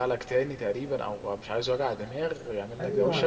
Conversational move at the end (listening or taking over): taking over